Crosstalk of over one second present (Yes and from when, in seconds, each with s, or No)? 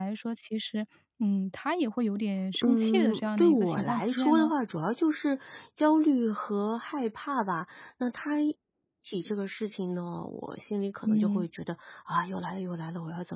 Yes, from 2.6 s